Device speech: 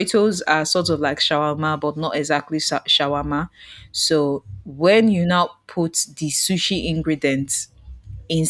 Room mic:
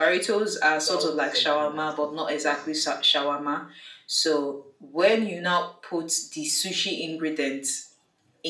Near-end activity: present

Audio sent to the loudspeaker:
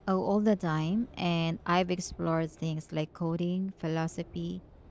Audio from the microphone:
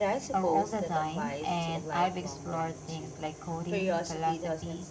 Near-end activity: present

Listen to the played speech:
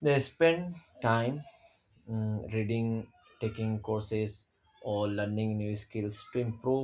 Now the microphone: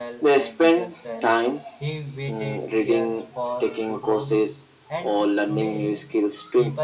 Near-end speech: present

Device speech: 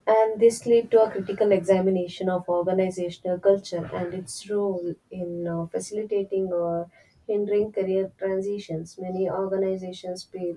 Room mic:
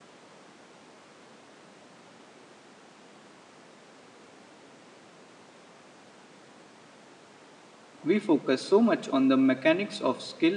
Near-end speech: present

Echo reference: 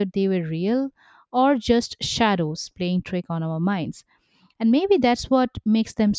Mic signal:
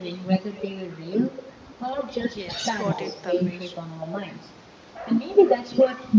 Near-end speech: present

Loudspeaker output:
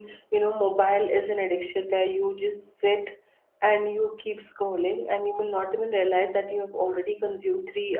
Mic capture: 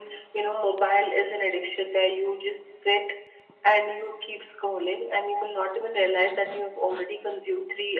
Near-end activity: none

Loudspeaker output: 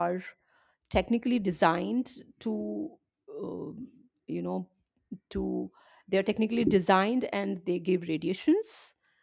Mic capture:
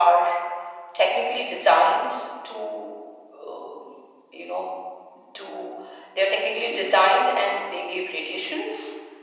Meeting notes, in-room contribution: none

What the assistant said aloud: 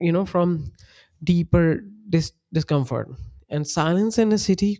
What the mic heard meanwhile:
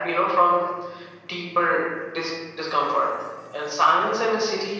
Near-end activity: none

